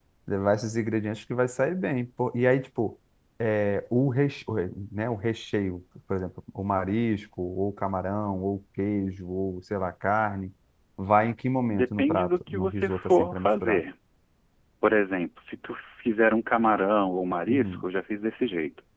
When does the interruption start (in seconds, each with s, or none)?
11.7 s